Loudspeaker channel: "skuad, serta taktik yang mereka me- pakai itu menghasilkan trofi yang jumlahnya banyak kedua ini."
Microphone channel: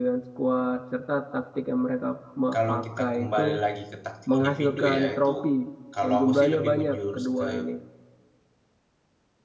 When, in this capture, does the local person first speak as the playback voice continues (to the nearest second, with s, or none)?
3 s